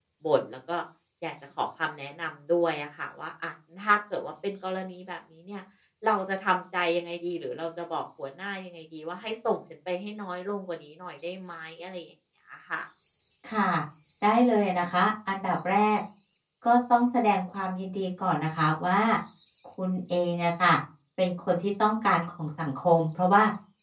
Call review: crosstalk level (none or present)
none